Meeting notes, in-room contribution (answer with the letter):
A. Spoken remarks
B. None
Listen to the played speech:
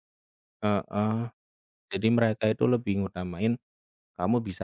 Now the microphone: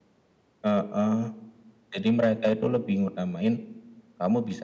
B